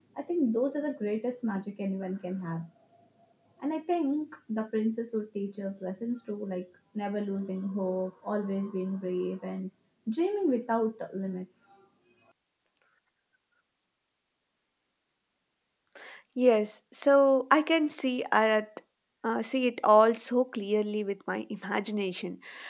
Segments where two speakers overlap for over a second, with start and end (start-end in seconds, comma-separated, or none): none